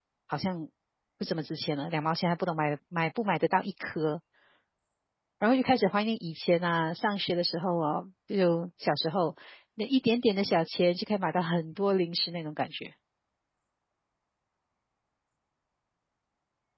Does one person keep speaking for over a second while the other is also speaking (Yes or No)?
No